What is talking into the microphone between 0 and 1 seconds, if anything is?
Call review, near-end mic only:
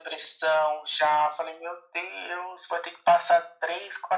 echo only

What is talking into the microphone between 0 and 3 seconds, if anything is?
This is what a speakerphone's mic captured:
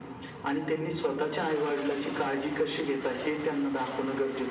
echo only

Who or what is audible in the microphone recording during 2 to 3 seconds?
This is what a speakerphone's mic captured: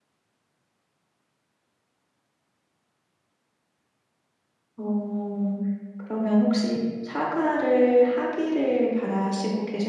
neither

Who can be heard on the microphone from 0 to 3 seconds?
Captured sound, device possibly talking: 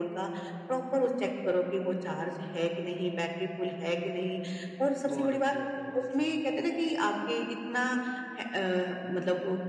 echo only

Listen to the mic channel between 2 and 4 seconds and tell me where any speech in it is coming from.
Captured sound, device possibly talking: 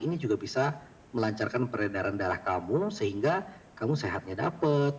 echo only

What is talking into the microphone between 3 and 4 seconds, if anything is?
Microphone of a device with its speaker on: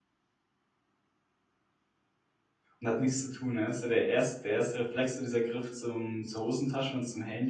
user only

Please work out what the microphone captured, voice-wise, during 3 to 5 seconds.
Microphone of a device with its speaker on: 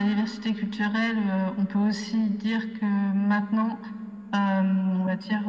echo only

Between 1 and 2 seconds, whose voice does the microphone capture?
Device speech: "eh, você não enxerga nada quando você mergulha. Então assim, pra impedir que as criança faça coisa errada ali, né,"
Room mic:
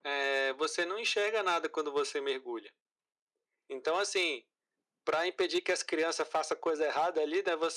echo only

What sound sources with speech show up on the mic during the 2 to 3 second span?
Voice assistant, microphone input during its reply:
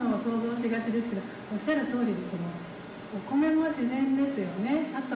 echo only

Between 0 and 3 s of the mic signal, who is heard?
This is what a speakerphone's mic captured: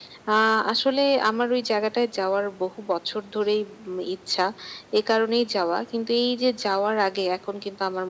echo only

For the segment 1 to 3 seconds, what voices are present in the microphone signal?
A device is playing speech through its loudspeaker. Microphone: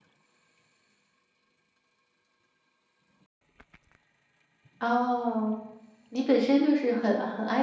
neither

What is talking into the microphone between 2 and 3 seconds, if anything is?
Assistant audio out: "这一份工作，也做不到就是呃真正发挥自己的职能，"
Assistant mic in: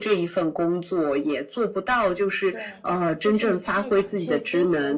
both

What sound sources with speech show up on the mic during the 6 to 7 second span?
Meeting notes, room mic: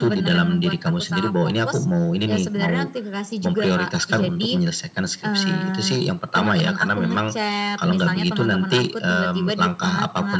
echo only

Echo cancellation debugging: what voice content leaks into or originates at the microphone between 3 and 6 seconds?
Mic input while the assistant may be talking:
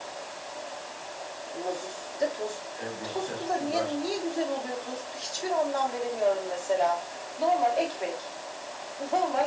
both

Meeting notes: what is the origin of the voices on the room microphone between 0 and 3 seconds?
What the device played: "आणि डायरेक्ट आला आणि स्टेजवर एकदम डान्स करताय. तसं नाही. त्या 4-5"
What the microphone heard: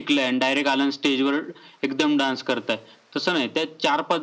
echo only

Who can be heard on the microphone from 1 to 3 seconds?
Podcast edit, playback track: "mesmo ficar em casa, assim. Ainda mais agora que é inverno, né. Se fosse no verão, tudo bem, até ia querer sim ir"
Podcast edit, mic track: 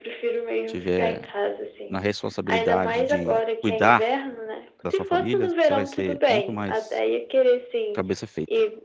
both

